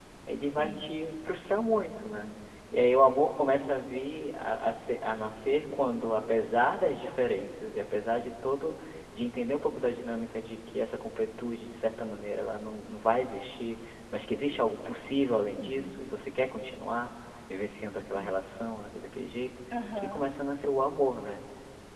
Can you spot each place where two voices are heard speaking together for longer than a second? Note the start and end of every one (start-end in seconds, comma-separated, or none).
none